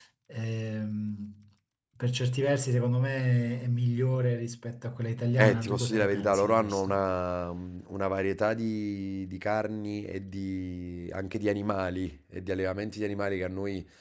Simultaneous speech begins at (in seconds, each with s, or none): 5.4 s